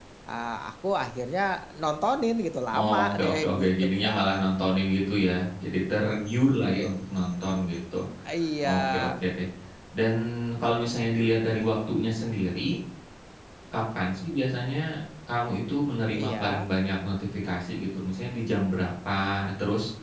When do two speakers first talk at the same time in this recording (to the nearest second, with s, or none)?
3 s